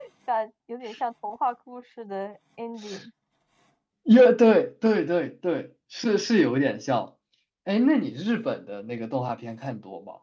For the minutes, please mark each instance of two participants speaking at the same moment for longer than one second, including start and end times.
none

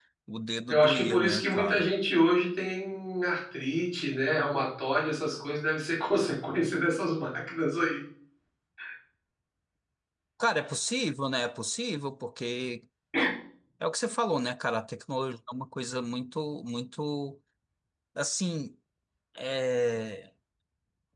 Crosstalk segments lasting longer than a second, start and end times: 0.7-1.9

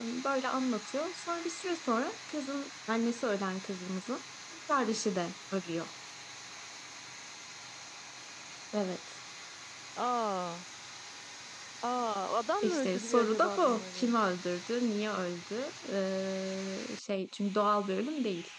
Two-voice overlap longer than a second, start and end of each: 12.6-14.1

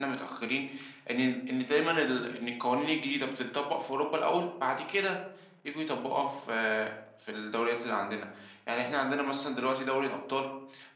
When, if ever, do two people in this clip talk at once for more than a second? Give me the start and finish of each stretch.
none

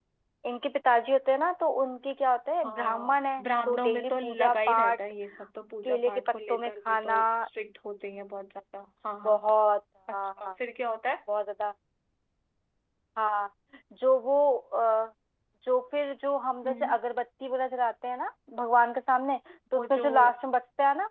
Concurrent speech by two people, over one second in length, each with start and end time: 2.6-5.0, 5.8-7.2

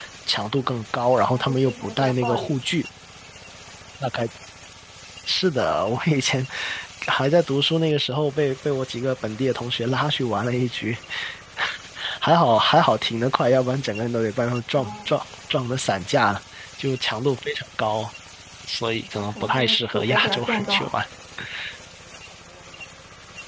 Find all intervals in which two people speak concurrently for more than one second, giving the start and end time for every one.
1.3-2.6, 19.1-20.9

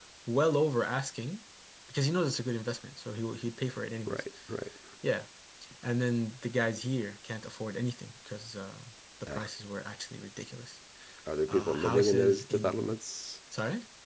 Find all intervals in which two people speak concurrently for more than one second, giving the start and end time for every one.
11.5-12.9

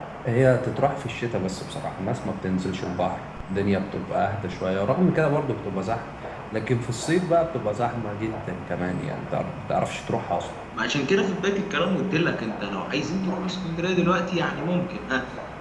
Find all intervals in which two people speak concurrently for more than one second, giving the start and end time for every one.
none

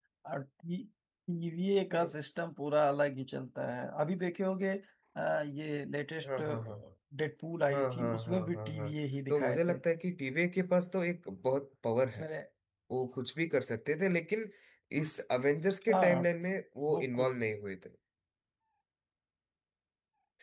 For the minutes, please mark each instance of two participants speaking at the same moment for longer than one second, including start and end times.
7.7-8.9

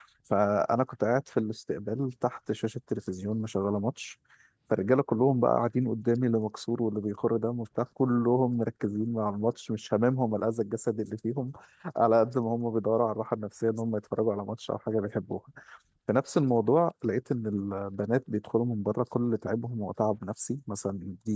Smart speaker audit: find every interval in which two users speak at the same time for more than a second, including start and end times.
none

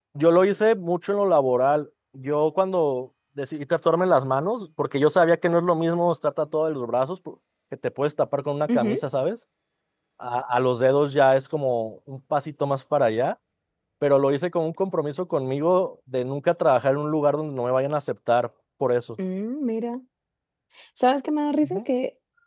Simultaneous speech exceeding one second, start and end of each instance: none

